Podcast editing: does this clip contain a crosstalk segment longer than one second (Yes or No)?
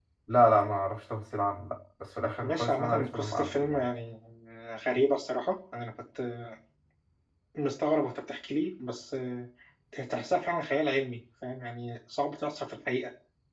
Yes